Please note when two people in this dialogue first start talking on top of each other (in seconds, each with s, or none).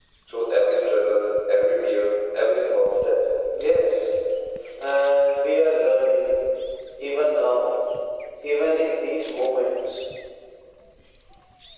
none